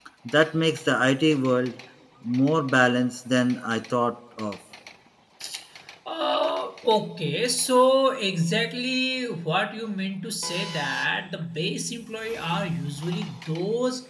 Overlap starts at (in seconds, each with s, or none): none